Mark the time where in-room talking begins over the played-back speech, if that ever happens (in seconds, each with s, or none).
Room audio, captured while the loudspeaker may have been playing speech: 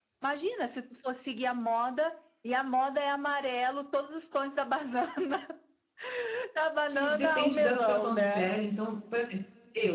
6.9 s